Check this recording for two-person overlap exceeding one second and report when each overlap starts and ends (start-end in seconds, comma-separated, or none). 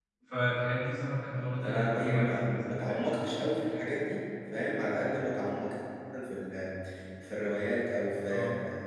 1.6-3.0